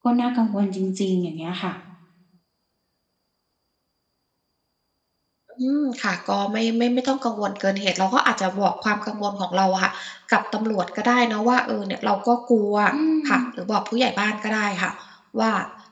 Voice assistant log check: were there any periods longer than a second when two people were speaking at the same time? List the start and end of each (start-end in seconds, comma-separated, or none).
none